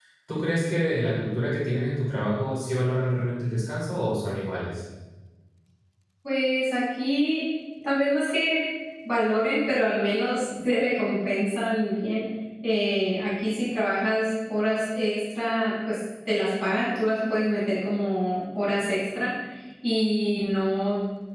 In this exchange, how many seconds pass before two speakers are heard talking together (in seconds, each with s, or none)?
none